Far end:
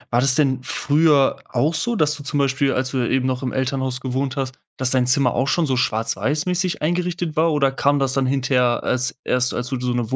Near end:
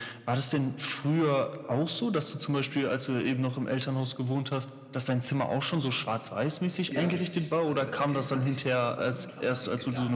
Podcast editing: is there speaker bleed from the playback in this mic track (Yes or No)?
Yes